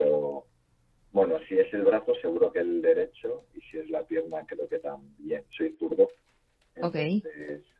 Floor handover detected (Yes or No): No